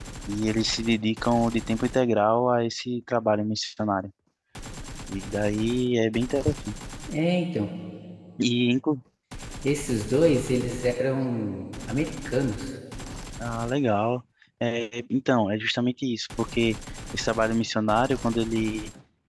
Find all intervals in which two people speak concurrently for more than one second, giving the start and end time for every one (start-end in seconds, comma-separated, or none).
none